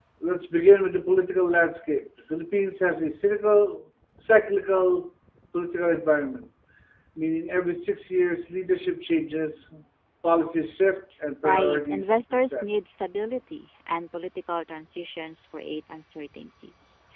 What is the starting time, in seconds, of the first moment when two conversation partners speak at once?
11.4 s

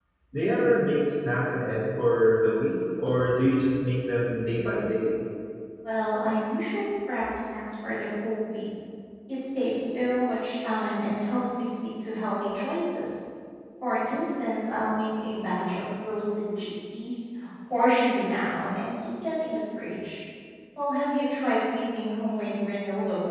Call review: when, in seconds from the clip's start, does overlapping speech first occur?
none

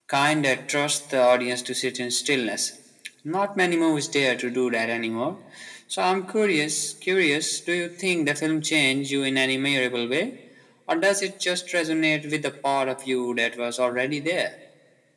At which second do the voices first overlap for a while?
none

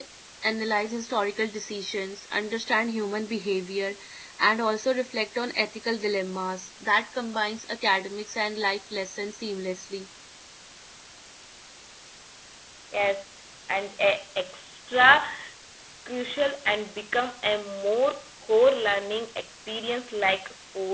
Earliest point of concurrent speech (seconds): none

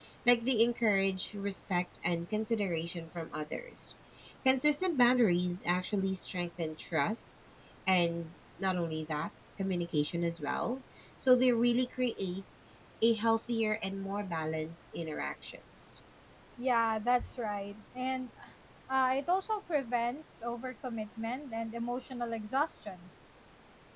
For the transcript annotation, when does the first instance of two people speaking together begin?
none

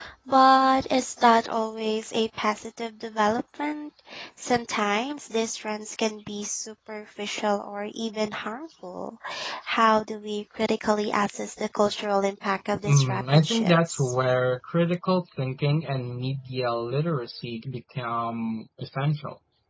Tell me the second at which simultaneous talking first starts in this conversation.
12.8 s

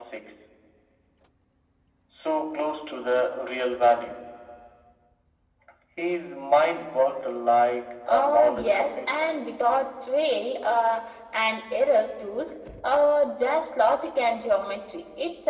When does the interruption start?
8.1 s

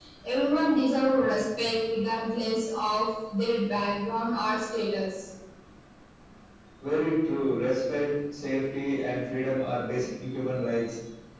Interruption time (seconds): none

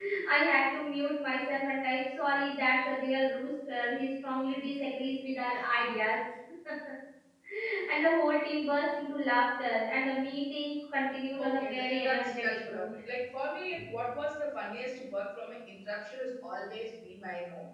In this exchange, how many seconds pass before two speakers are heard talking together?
11.4 s

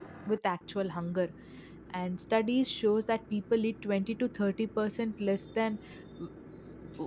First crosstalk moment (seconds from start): none

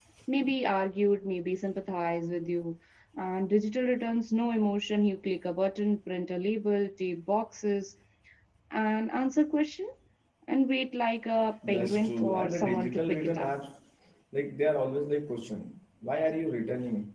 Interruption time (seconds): 11.6 s

